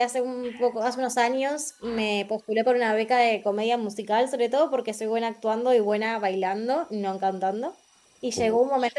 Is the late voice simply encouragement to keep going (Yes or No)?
Yes